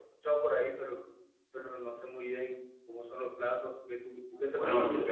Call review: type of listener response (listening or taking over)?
taking over